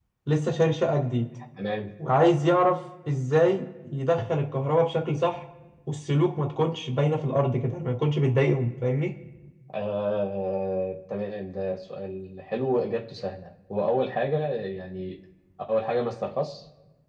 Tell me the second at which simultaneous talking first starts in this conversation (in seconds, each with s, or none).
none